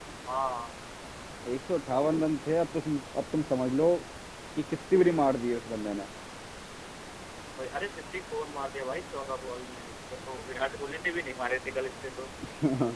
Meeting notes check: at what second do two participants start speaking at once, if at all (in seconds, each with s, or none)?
none